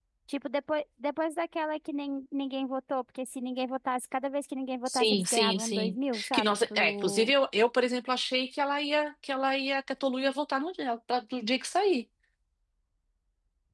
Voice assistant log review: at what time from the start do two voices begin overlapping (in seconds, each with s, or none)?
4.9 s